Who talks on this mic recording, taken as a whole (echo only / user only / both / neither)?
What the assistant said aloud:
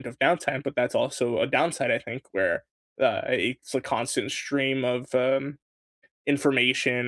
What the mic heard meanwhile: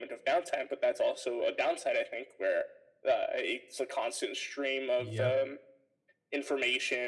both